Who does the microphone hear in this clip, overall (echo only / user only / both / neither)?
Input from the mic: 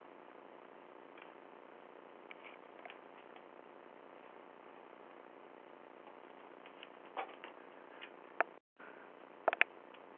neither